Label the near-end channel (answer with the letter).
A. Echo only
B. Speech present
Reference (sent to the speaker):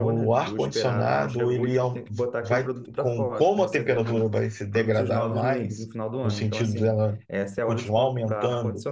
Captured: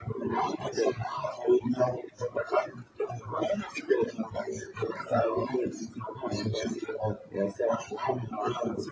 A